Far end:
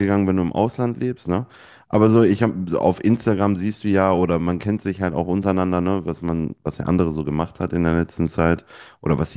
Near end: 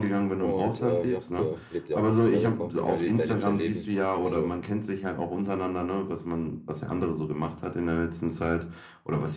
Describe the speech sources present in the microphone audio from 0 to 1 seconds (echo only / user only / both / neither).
both